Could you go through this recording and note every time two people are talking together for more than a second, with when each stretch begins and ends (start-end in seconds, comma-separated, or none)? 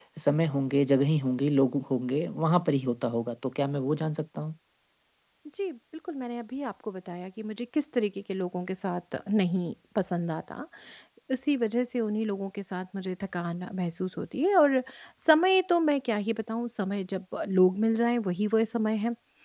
none